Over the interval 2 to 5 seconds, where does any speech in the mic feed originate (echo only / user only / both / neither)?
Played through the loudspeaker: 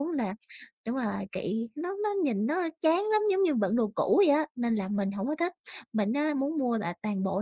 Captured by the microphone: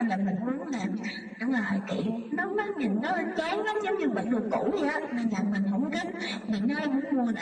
echo only